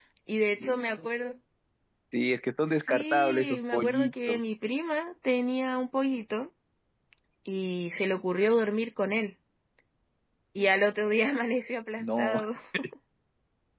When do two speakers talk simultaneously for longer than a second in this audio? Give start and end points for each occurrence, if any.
2.9-4.4

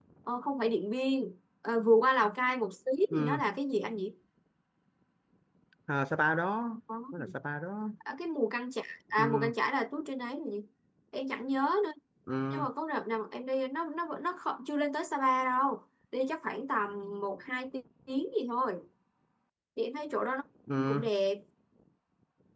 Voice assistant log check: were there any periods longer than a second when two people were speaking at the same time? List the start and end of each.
none

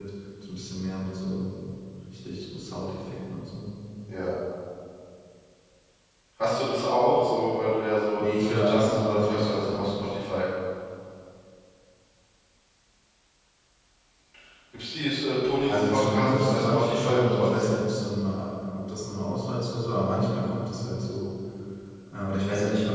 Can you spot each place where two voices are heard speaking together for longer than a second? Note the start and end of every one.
8.2-9.9, 15.7-17.6

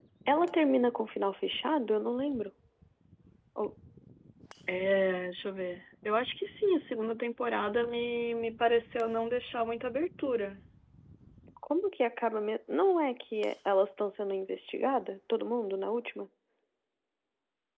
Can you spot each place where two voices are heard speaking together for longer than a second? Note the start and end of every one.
none

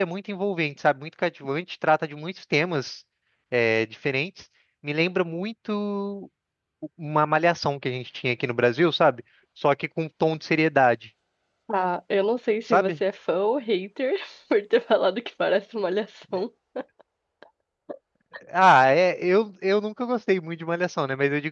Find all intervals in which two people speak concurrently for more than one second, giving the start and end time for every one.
none

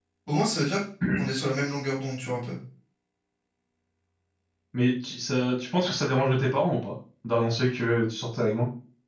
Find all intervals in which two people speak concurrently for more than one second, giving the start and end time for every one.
none

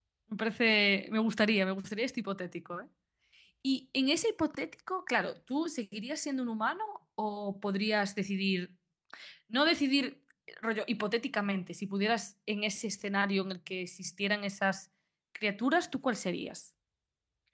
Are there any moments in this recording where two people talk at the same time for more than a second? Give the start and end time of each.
none

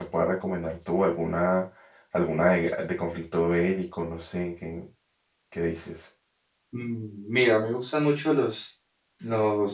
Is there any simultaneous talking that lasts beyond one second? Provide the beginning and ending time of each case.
none

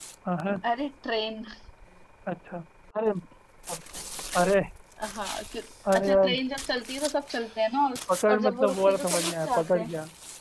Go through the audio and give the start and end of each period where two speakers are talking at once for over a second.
8.3-9.9

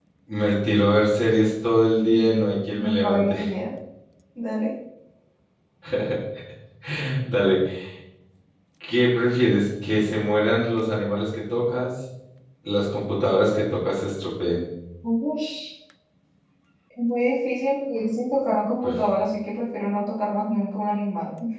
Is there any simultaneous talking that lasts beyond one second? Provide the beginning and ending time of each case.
2.1-3.4

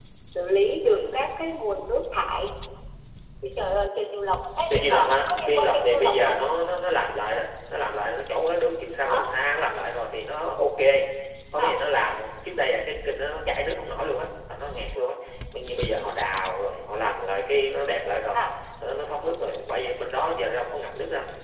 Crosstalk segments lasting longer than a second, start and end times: 4.7-6.4

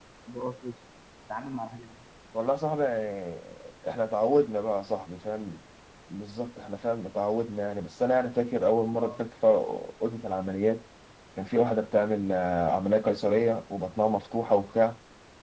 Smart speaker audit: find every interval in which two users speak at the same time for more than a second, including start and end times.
none

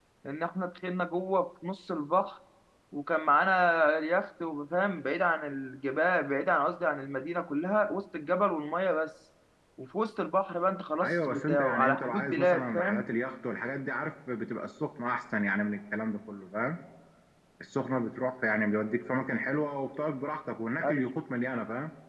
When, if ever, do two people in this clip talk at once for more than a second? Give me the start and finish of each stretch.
11.0-13.1

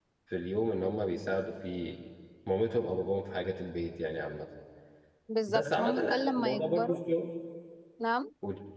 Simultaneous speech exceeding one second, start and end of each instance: 5.5-7.0

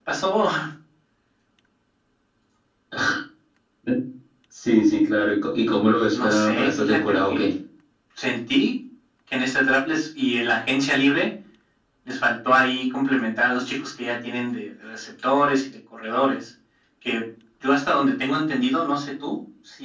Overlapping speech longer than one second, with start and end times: 6.1-7.4

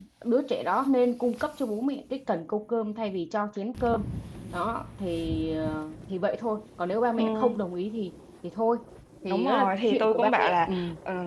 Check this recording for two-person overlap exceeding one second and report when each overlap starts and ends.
9.3-10.7

